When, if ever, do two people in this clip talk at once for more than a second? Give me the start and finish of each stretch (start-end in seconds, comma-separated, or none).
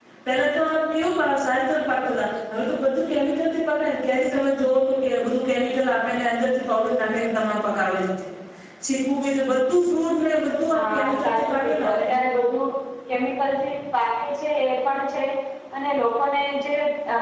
10.7-12.0